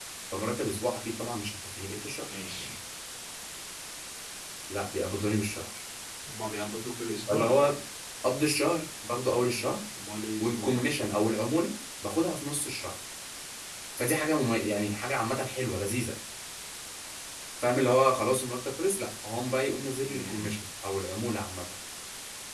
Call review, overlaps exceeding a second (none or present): none